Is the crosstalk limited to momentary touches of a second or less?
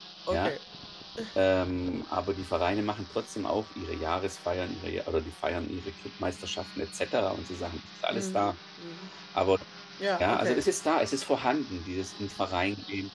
Yes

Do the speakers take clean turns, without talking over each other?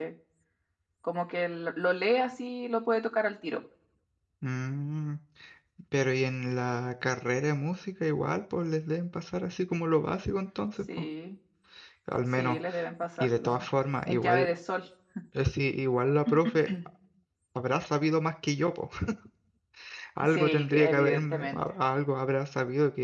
No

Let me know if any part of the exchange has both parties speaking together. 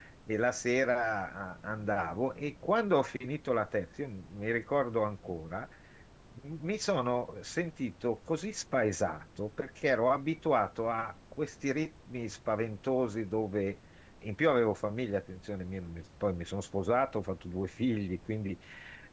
No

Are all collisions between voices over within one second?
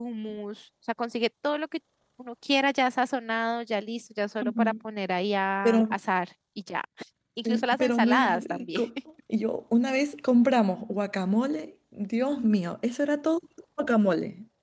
No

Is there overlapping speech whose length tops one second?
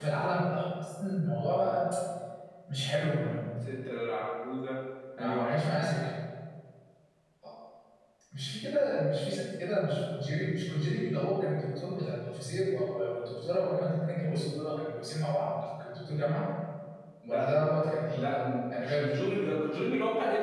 No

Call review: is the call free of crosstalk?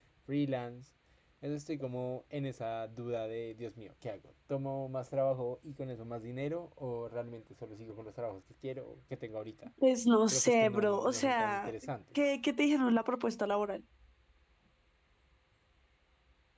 No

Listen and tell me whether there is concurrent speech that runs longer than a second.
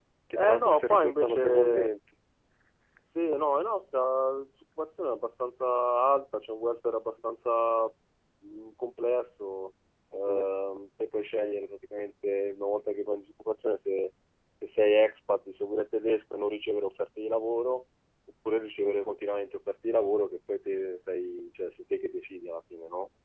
Yes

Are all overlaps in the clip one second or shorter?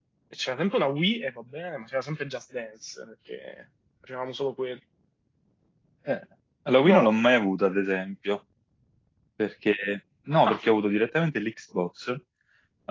Yes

